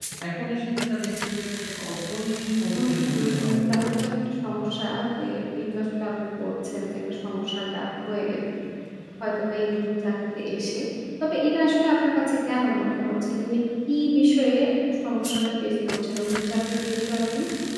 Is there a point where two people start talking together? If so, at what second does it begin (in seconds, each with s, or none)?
2.8 s